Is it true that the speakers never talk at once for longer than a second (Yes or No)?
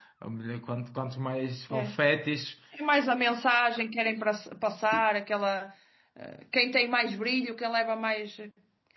Yes